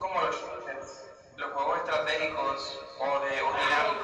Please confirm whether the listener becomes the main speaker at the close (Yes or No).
Yes